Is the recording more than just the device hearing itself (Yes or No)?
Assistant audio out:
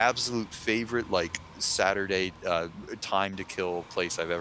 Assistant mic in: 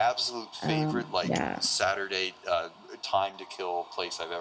Yes